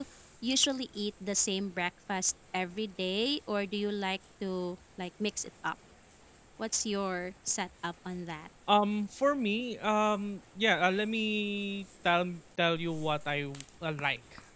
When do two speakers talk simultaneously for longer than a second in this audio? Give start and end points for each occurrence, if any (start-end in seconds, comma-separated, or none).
none